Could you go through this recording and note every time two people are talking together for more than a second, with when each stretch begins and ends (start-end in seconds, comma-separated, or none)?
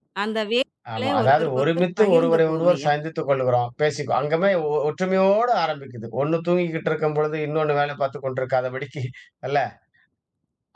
0.9-2.9